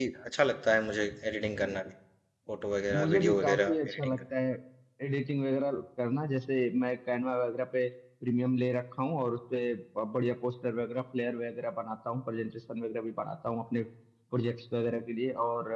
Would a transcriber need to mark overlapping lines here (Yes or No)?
Yes